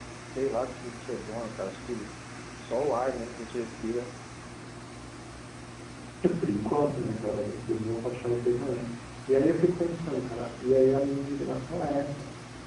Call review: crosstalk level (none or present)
none